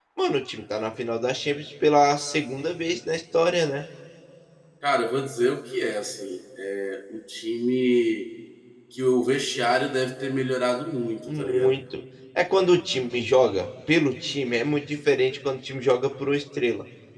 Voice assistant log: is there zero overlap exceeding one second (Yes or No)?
Yes